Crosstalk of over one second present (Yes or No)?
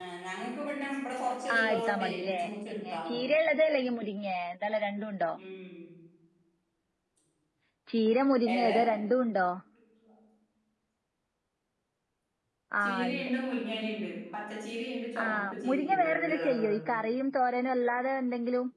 Yes